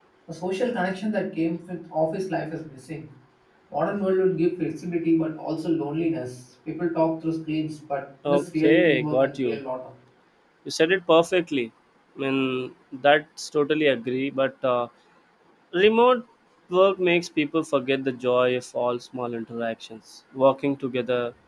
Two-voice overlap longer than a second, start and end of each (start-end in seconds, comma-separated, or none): 8.3-9.6